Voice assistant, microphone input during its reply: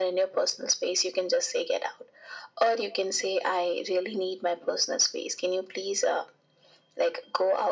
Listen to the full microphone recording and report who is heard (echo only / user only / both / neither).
echo only